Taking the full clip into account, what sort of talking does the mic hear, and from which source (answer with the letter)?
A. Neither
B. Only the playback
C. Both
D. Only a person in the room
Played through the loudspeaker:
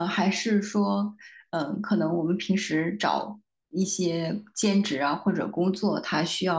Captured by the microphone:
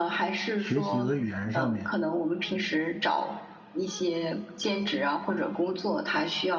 C